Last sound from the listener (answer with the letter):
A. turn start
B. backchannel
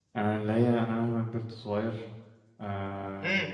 A